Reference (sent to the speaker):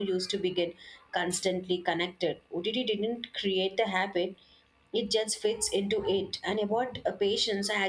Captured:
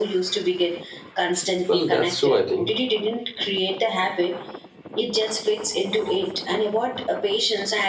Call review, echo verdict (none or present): present